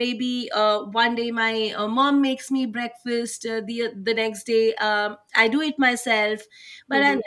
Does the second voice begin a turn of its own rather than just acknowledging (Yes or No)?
No